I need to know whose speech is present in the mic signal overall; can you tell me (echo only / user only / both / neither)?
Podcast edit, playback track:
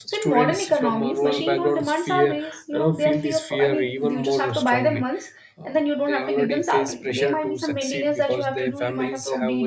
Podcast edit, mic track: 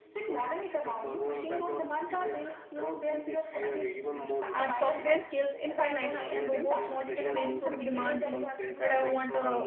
both